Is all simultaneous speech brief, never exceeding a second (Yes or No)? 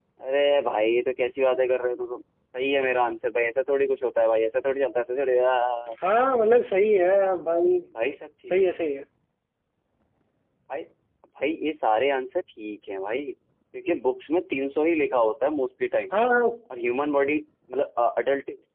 Yes